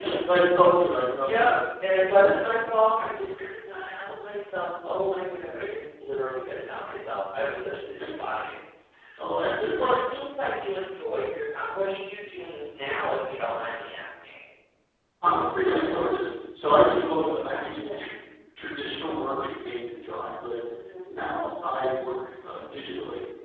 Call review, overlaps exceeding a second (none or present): present